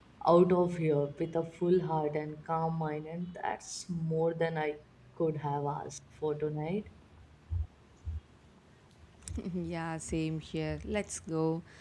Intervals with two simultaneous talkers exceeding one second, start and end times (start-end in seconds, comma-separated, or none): none